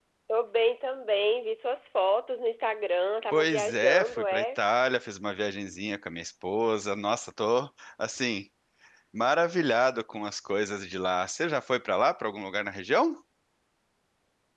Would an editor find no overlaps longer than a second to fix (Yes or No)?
No